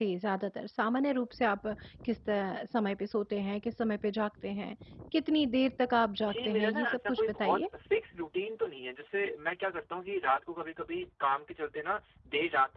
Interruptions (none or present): present